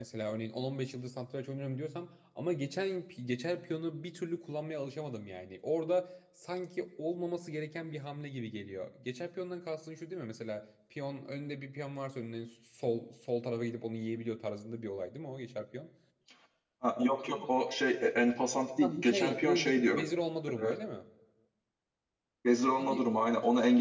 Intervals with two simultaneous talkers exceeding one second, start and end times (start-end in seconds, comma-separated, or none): 18.8-20.0